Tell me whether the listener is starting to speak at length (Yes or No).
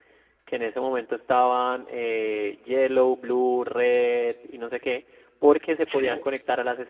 No